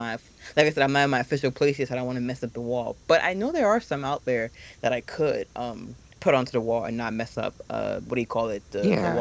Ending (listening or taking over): taking over